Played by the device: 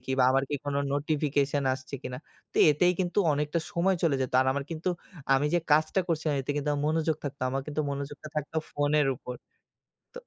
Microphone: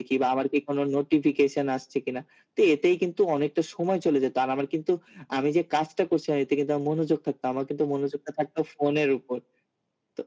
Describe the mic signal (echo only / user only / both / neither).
echo only